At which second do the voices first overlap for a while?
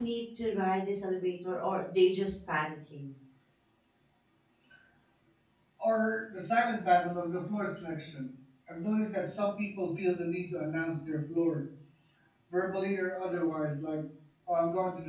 none

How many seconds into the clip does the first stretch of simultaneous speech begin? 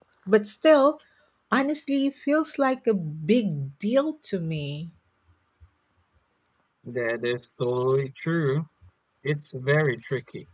none

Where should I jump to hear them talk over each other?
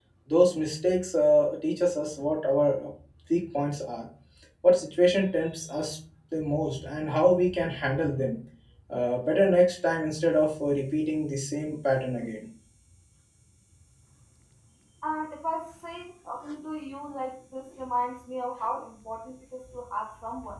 none

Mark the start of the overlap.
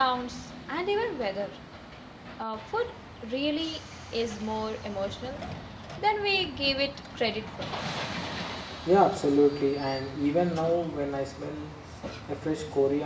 none

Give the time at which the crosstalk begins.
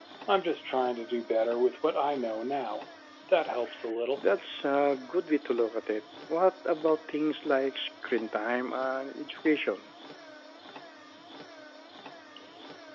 none

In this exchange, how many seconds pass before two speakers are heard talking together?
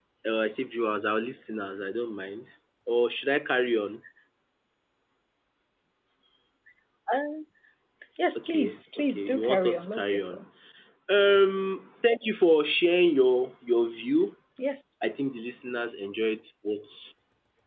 8.4 s

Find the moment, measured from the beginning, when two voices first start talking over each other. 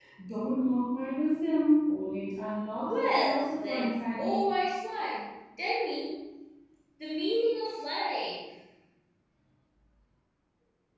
2.8 s

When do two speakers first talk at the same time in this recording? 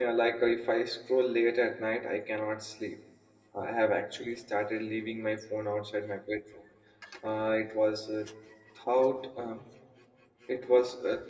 none

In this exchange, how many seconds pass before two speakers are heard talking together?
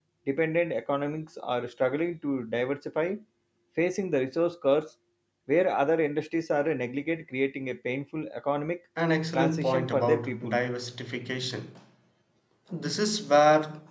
9.3 s

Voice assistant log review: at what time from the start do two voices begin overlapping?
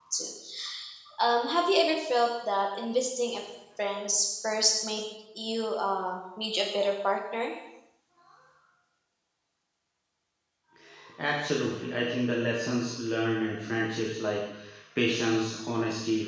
none

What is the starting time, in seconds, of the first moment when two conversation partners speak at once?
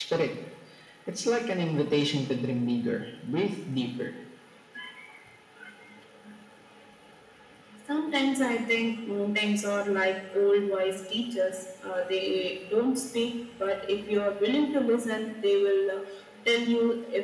none

